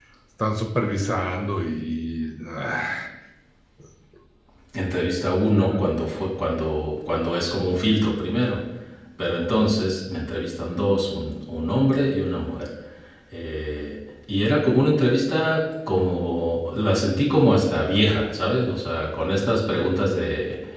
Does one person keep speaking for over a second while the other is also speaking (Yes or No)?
No